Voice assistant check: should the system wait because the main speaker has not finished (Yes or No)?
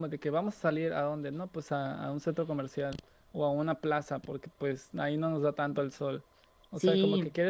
Yes